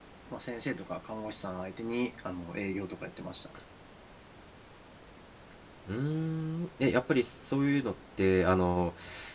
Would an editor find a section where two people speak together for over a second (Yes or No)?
No